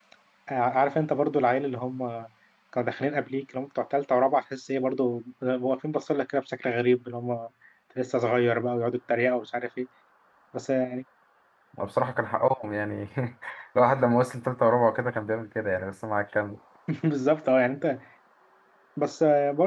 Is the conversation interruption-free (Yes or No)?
Yes